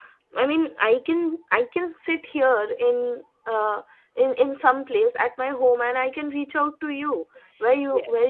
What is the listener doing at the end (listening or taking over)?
listening